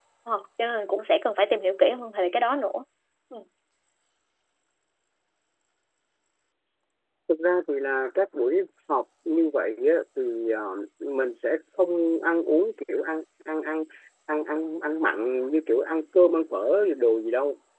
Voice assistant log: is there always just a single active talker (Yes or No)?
Yes